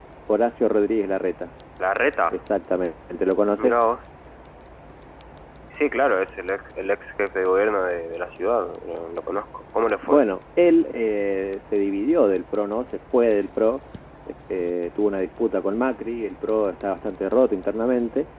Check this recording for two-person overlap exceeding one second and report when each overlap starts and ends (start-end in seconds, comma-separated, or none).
none